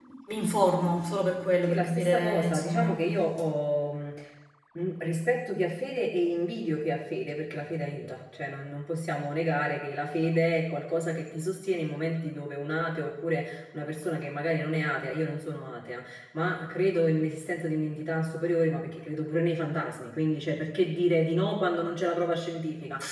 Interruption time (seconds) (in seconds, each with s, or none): 1.7 s